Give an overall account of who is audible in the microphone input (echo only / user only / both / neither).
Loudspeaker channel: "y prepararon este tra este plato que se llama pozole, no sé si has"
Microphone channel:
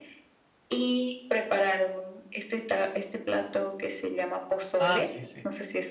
both